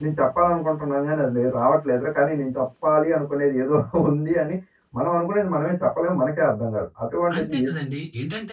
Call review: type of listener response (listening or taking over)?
taking over